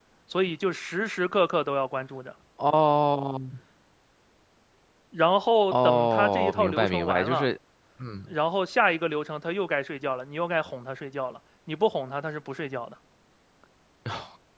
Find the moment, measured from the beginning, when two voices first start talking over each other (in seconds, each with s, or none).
5.7 s